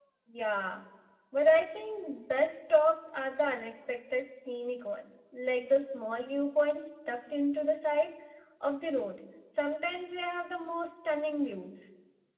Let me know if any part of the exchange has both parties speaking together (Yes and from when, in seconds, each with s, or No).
No